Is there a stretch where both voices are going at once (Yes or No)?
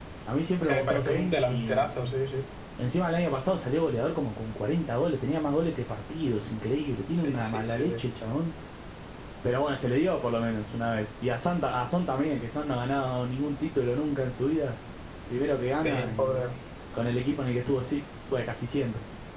Yes